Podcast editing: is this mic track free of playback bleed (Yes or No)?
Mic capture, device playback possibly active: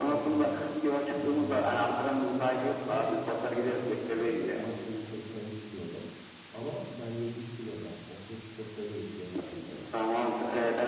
No